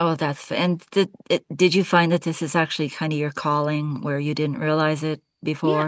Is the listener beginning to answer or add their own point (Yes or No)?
Yes